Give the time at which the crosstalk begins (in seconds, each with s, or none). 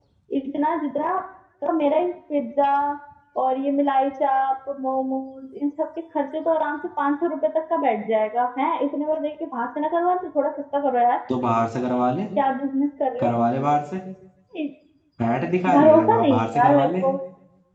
15.7 s